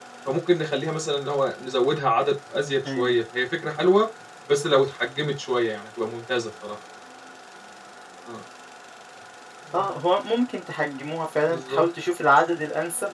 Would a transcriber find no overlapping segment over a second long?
Yes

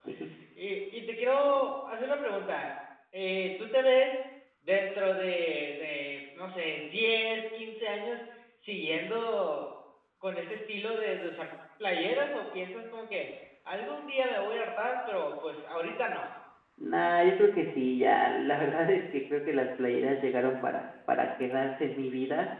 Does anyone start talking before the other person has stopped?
No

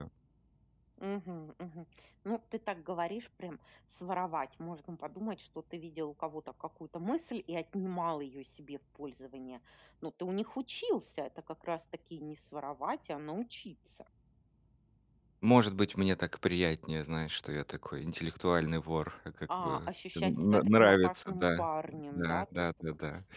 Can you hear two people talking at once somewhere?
Yes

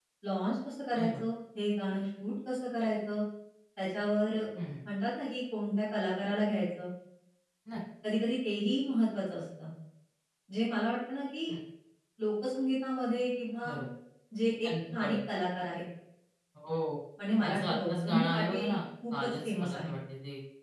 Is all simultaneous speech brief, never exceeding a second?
No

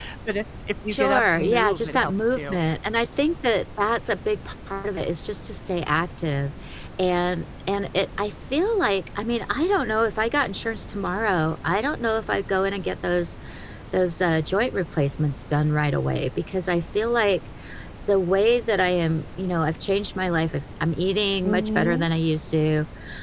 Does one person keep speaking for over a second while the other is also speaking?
Yes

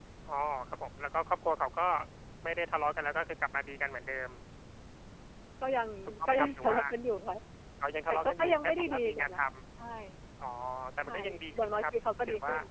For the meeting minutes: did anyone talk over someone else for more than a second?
Yes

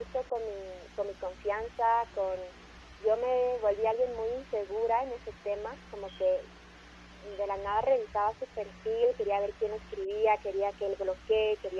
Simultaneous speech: No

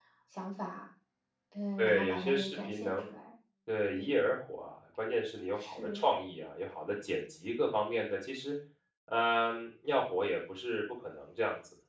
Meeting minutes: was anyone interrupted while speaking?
Yes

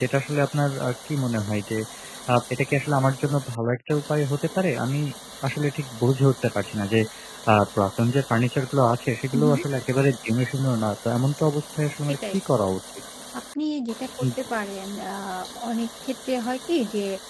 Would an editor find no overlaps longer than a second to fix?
Yes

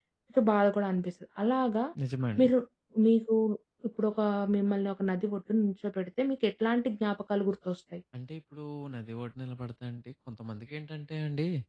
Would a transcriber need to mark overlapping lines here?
No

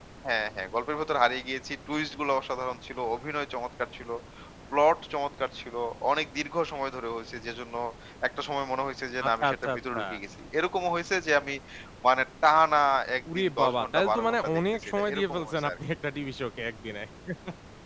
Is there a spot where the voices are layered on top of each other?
Yes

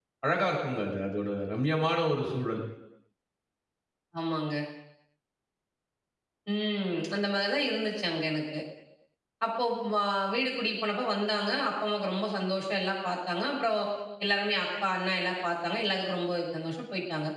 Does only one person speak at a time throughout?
Yes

